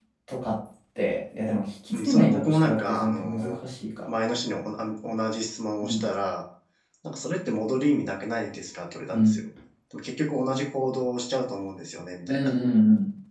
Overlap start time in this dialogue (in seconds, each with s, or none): 1.9 s